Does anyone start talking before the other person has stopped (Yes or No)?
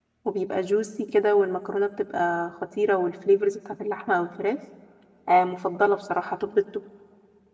No